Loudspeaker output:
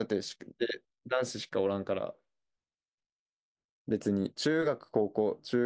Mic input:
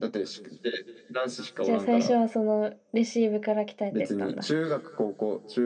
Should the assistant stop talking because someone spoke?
Yes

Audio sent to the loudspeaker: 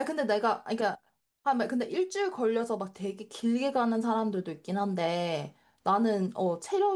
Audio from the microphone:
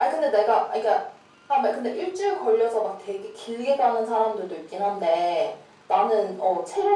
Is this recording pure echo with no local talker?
Yes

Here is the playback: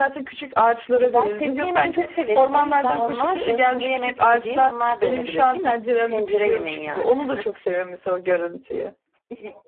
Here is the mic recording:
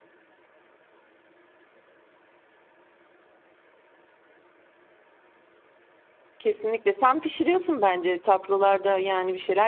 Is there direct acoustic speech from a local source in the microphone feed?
Yes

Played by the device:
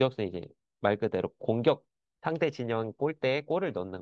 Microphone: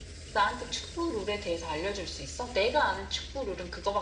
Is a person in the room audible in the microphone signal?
Yes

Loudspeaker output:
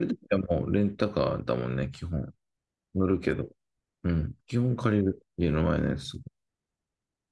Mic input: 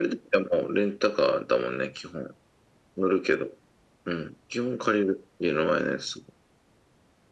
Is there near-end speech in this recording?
No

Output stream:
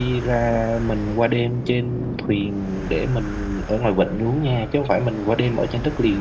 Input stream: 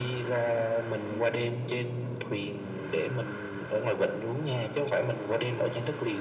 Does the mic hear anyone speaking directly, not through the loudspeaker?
No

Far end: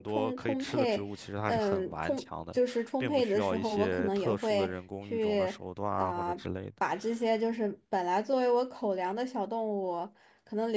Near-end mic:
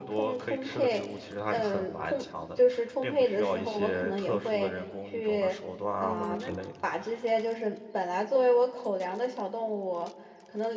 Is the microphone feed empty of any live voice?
No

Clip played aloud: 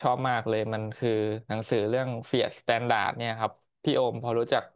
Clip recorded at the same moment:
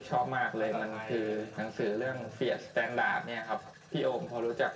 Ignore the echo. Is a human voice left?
Yes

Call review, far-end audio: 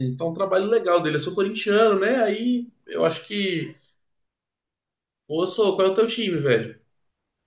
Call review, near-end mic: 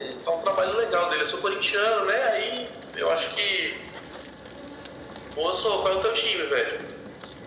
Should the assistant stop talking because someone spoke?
No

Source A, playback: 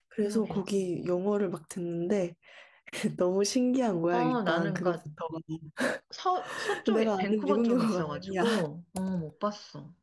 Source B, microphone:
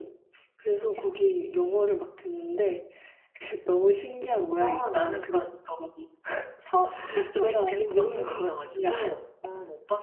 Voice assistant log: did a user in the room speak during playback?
No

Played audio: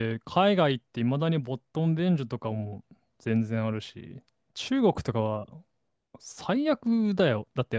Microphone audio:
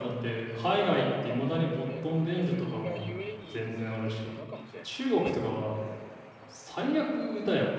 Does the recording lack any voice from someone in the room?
No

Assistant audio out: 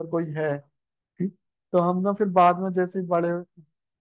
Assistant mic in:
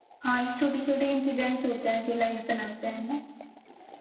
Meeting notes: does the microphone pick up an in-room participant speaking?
Yes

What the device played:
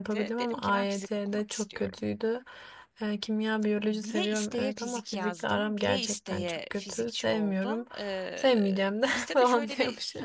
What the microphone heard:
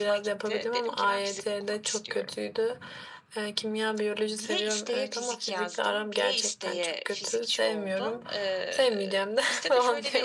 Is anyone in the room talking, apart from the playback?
No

